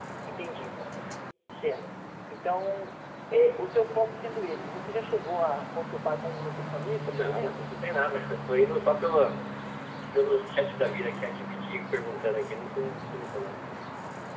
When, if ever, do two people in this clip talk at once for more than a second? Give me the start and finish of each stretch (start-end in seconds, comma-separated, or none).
none